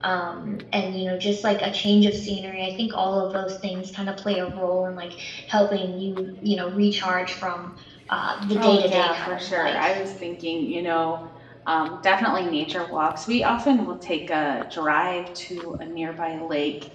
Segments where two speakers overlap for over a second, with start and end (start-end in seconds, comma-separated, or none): 8.6-9.9